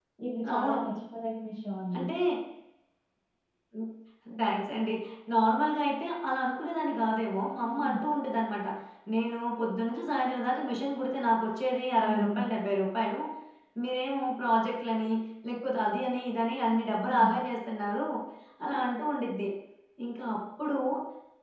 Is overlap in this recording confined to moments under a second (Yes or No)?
Yes